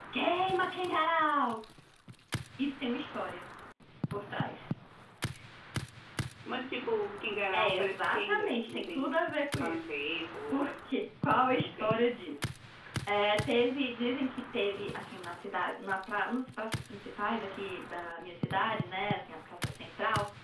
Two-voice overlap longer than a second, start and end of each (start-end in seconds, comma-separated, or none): 7.5-9.2